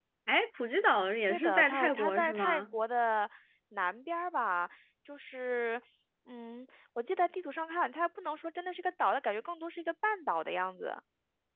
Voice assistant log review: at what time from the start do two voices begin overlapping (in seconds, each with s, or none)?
1.3 s